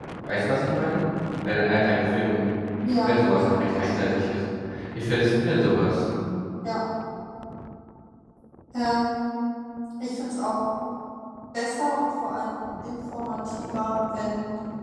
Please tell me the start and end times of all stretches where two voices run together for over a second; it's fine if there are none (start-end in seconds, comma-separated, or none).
3.0-4.2